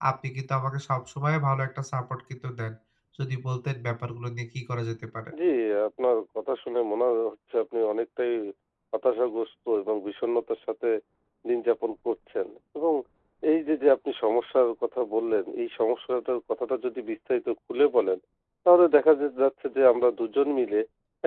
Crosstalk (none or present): none